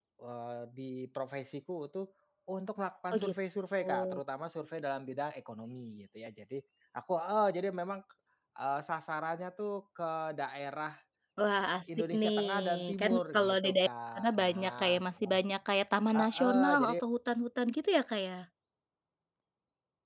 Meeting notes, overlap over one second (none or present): present